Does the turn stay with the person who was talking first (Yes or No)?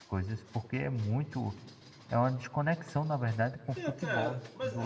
No